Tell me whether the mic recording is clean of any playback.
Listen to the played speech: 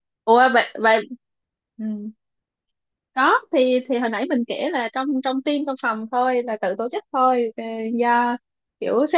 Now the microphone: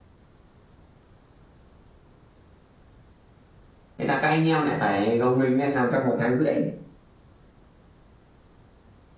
Yes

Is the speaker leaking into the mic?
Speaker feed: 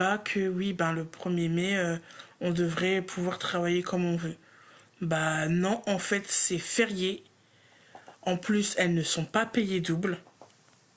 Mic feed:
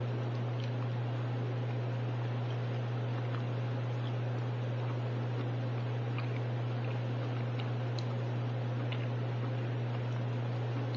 No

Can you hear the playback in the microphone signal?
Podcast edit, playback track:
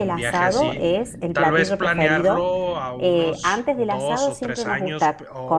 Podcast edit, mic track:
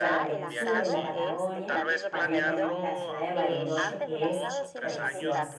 Yes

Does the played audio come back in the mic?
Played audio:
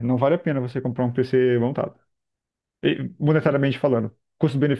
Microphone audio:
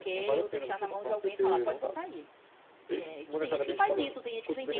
Yes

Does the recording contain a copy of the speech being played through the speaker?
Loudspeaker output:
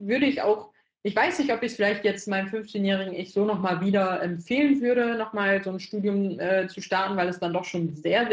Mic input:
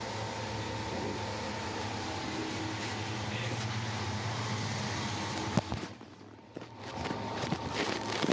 No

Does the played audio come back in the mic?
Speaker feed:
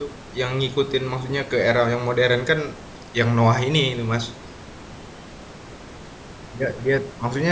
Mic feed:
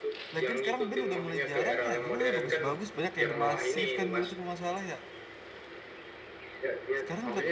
Yes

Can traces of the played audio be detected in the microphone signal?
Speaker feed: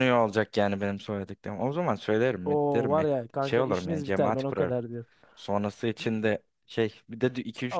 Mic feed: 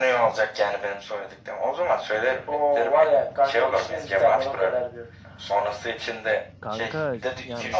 Yes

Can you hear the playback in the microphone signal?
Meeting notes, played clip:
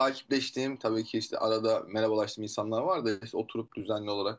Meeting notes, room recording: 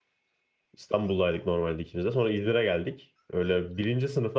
No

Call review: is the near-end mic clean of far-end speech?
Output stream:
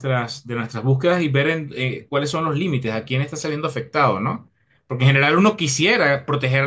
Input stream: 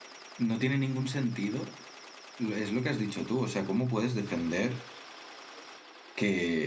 Yes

